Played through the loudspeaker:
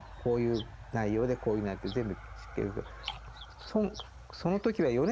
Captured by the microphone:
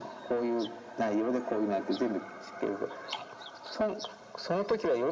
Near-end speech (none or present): none